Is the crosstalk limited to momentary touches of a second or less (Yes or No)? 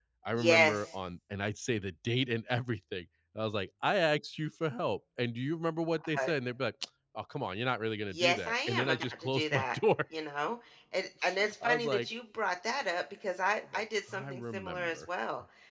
No